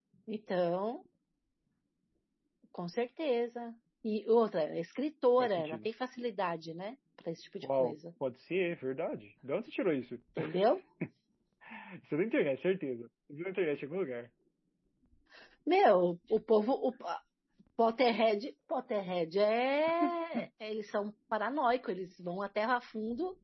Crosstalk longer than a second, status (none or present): none